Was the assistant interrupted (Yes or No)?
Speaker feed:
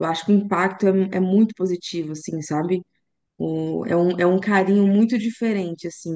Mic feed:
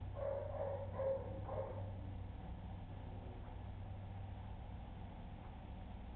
No